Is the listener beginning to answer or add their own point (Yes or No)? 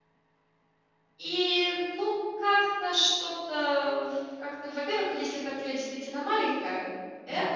No